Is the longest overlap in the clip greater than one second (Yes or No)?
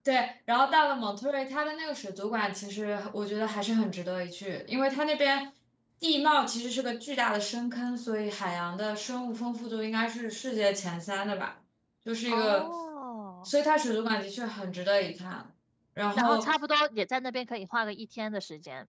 No